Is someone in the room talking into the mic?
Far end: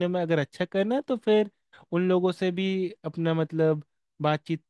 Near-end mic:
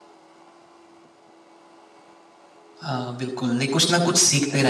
Yes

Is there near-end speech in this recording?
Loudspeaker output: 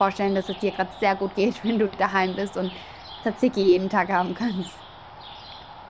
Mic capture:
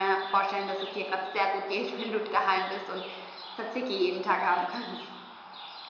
No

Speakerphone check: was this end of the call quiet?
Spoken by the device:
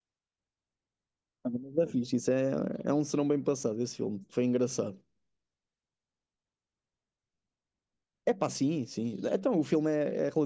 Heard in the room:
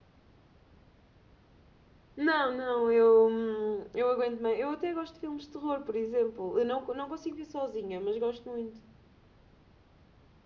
No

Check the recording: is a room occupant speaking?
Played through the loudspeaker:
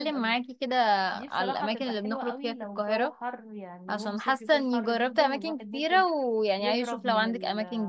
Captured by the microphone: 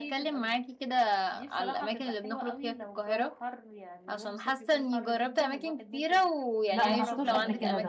Yes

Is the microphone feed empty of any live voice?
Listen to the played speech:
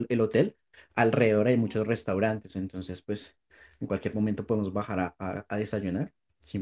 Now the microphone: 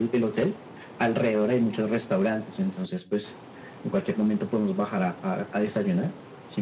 Yes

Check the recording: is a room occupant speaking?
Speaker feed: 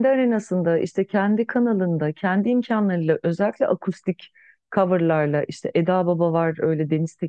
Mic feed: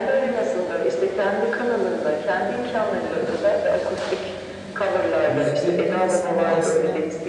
Yes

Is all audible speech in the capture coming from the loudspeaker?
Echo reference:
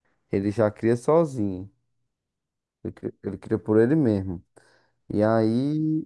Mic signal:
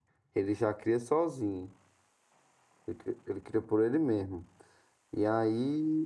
Yes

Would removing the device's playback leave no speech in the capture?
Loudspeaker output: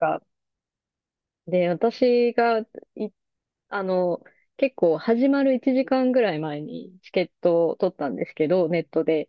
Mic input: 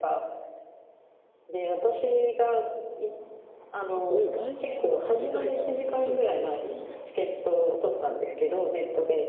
No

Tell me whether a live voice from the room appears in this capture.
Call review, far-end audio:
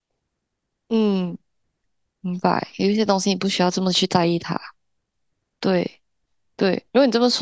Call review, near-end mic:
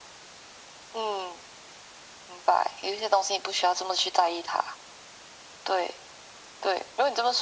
No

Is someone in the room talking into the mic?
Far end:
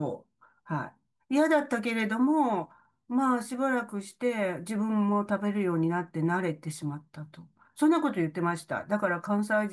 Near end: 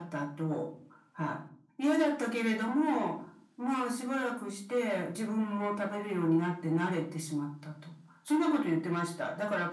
No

